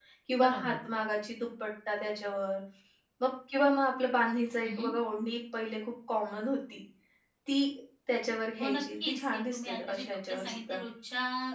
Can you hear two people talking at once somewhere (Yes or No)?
Yes